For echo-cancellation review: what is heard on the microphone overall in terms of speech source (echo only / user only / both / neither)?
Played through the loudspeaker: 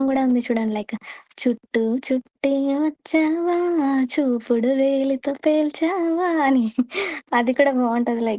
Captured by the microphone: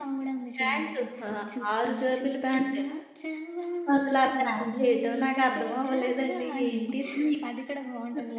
both